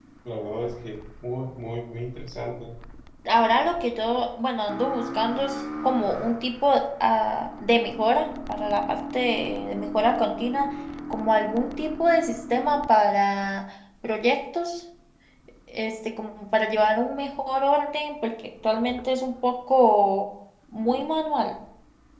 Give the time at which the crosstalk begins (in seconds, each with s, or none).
none